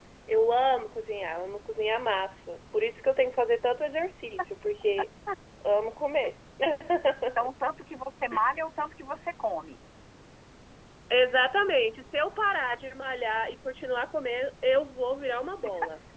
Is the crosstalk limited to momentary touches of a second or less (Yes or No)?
Yes